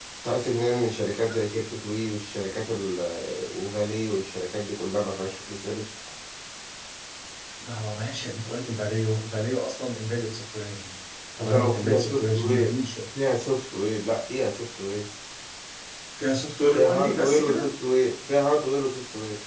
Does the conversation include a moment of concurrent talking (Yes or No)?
Yes